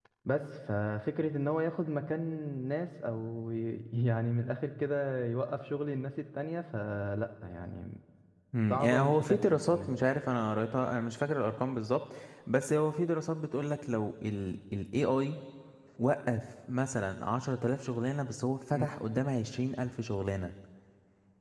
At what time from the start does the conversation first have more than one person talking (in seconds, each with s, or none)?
8.7 s